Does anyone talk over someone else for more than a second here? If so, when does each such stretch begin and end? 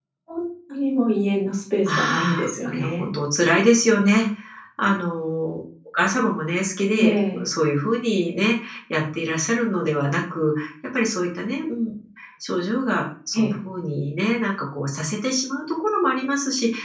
1.9-3.1

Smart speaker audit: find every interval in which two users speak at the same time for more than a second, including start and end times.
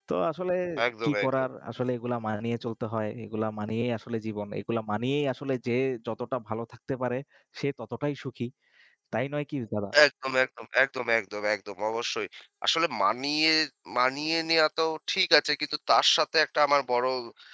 none

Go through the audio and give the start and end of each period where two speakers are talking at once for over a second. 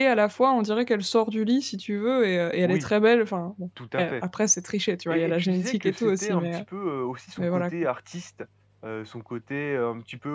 5.1-6.6

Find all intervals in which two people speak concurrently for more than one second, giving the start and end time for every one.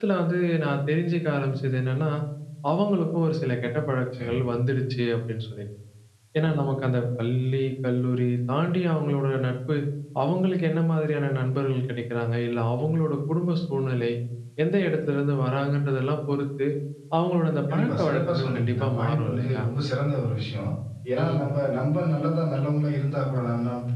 17.7-19.6

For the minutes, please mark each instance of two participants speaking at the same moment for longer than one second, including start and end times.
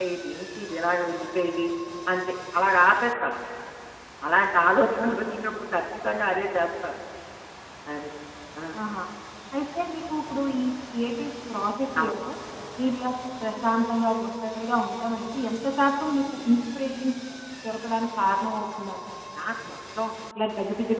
none

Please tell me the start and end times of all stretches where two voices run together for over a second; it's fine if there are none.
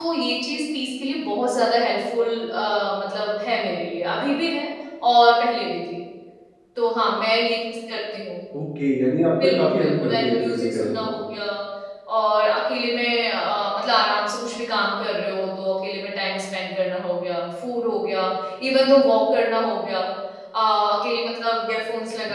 9.4-11.1

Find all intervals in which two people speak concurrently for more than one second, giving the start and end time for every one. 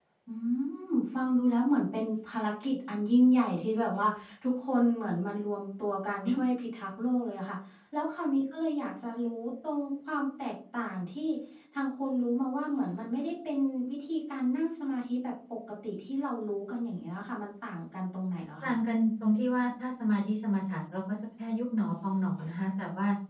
none

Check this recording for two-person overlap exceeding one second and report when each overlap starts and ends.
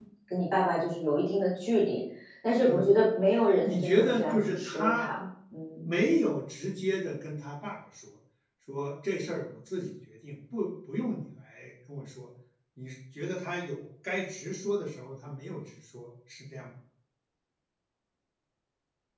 3.6-5.1

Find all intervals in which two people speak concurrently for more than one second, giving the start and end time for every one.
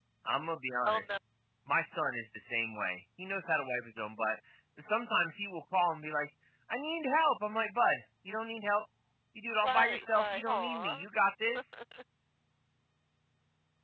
9.6-11.0

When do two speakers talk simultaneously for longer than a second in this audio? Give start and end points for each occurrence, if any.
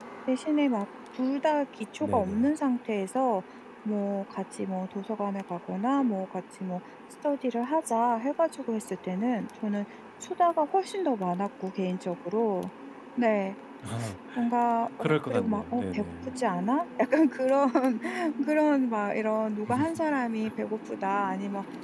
15.0-16.3

